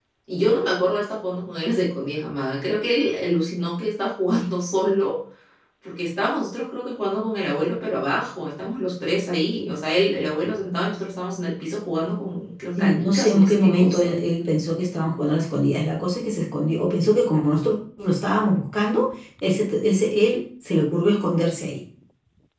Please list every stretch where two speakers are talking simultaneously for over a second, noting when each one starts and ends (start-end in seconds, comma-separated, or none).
12.8-14.2